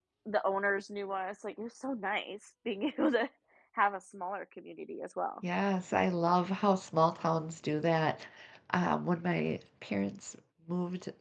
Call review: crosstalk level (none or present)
none